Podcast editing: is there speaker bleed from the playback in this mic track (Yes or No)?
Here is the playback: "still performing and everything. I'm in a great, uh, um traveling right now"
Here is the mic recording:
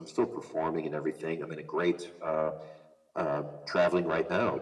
Yes